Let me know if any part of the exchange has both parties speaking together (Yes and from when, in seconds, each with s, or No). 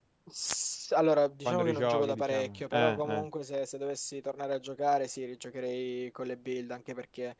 Yes, from 1.4 s